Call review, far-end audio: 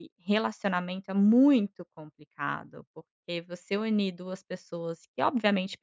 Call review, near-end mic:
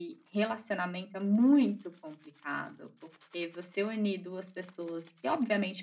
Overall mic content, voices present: echo only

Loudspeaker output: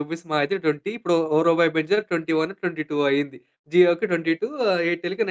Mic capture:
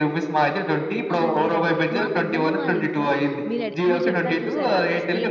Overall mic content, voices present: both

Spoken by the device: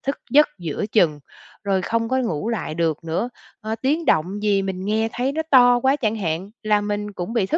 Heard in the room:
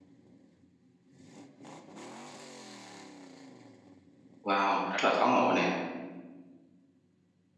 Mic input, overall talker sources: user only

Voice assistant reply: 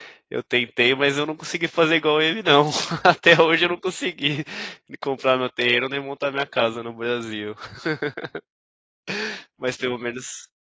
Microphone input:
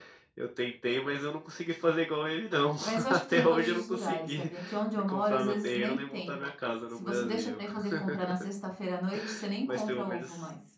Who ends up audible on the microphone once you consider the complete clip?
both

